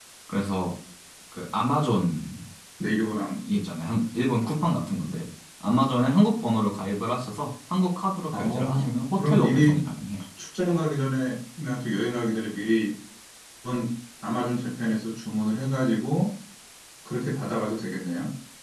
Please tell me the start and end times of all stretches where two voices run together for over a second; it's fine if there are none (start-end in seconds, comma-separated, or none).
8.3-9.8